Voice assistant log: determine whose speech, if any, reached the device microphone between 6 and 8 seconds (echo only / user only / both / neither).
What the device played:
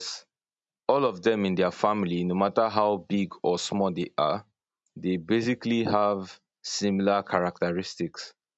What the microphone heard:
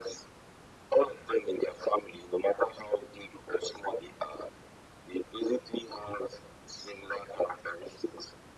echo only